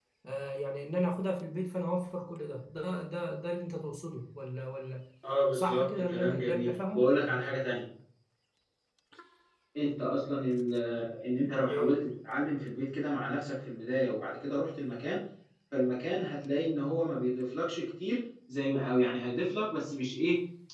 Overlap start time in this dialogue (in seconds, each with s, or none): 5.5 s